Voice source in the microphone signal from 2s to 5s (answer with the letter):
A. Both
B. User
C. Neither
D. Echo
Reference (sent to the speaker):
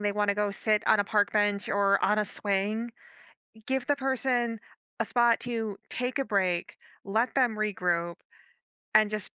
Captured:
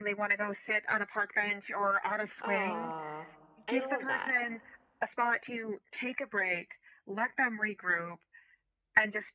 A